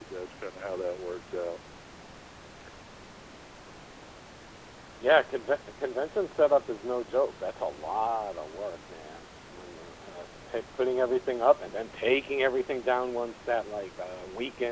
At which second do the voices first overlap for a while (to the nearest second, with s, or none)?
none